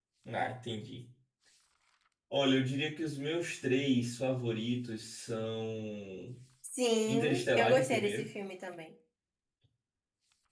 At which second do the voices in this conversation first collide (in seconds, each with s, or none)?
7.1 s